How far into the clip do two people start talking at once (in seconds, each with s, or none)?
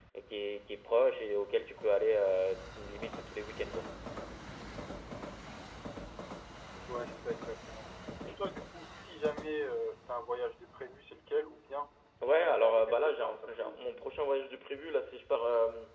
12.2 s